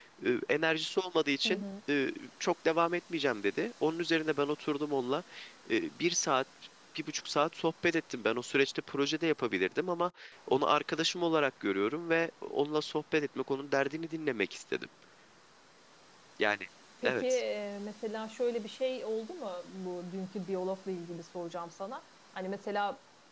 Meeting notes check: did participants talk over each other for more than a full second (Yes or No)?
No